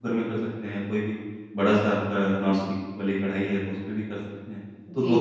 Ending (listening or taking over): listening